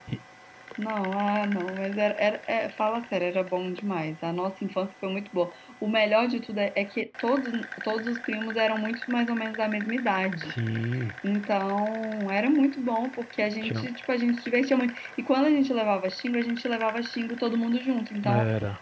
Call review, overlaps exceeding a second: none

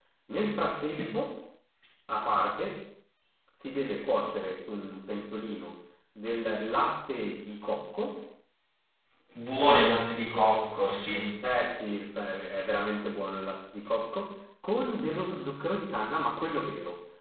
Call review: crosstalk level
none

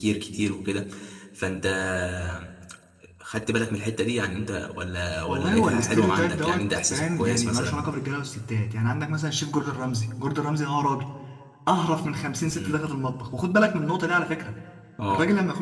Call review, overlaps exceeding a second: present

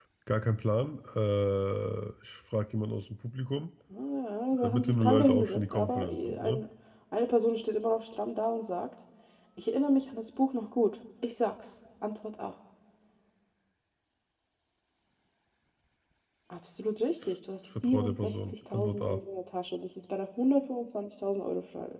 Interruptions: present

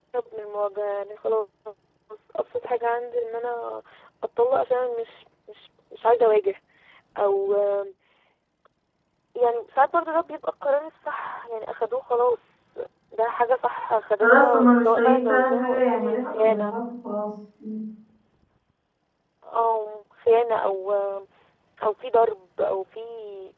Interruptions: present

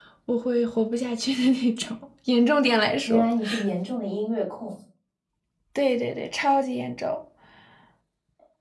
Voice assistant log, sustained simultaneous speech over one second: none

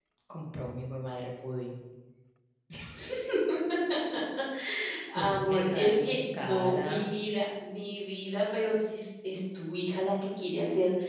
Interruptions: present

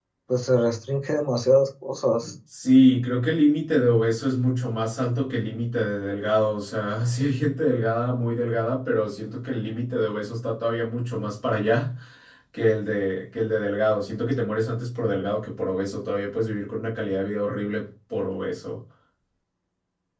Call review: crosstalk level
none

